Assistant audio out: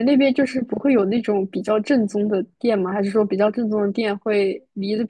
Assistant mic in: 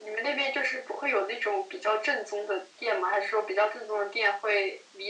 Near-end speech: none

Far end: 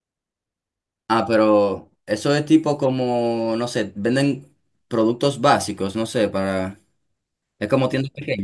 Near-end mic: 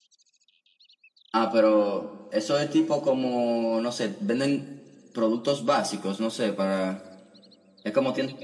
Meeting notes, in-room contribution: none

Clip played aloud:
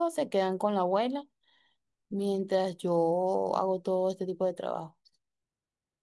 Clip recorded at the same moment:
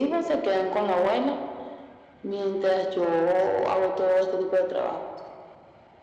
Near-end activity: none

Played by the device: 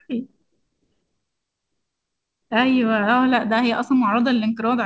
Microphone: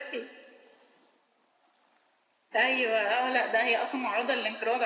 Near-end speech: none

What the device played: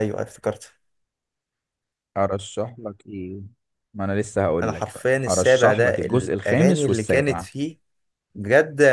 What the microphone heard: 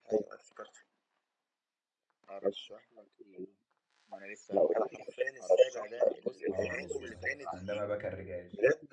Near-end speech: present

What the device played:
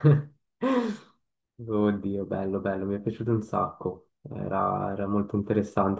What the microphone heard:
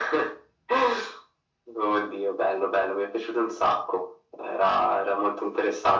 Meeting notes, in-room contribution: none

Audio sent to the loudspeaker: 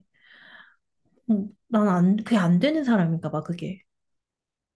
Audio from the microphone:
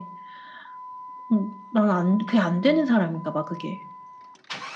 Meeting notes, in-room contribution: none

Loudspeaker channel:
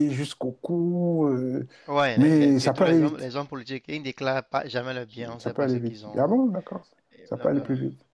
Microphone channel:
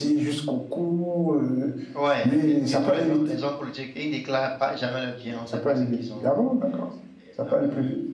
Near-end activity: none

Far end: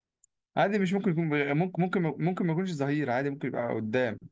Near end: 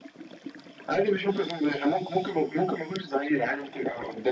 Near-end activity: none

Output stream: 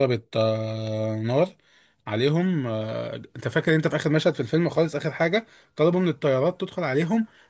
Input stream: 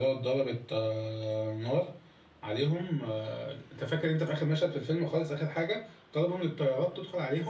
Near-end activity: none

